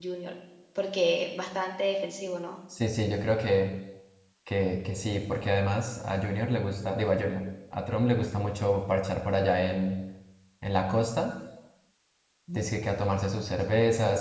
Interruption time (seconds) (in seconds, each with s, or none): none